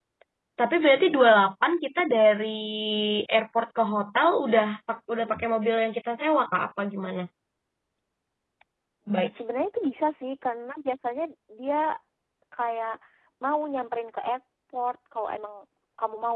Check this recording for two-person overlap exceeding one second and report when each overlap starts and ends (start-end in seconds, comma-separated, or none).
none